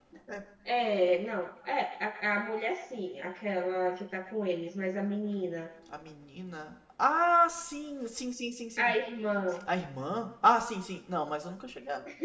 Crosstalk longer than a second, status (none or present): none